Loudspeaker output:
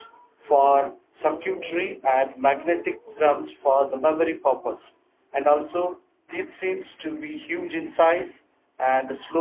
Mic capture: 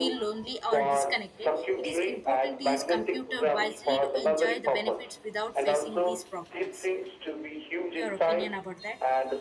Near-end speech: present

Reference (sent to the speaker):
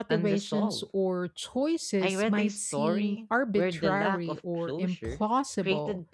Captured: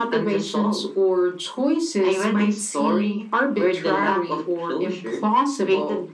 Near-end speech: none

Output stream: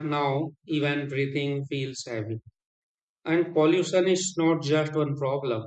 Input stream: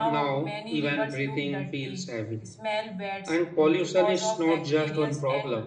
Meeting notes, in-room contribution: present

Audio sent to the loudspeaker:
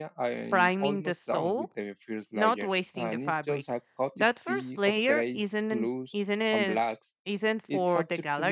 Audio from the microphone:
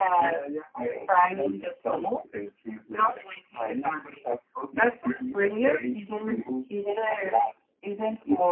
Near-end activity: none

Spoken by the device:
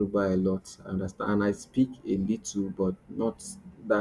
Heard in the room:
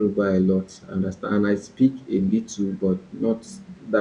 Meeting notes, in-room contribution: none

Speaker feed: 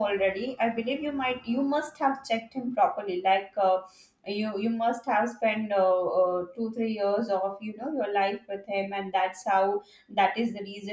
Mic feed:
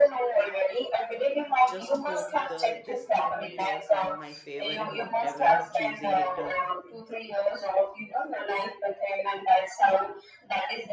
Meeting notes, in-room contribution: present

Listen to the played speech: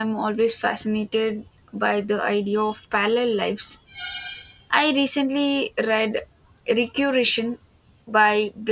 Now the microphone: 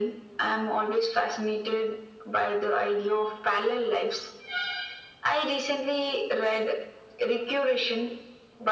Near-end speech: none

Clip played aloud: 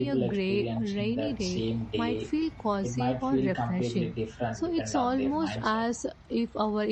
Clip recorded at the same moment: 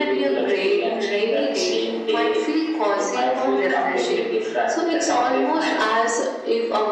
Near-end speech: none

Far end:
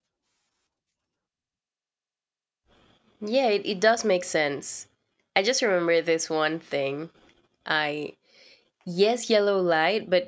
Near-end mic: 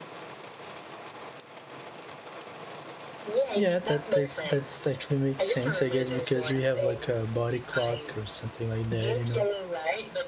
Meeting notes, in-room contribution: present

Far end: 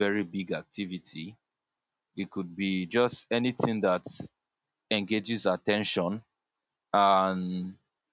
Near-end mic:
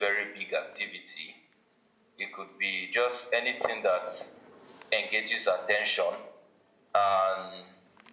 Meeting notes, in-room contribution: none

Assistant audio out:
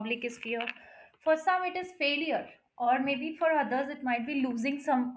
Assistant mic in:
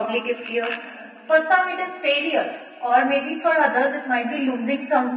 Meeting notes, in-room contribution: none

